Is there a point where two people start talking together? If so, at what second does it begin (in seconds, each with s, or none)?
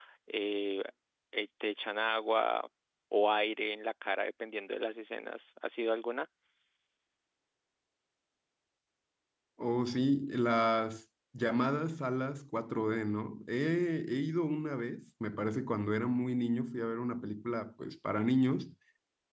none